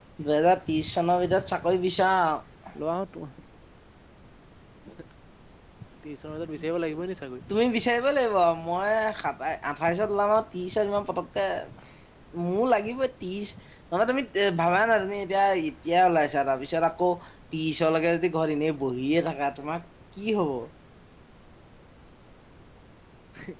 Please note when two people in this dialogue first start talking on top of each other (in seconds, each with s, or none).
none